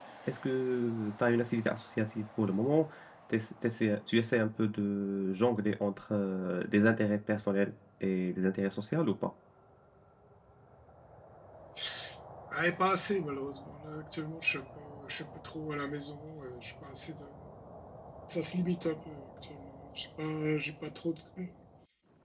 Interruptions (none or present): none